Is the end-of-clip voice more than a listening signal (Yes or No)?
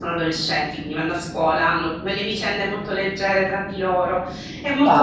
Yes